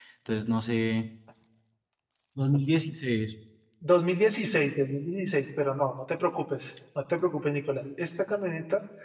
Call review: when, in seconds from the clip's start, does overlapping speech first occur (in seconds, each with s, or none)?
none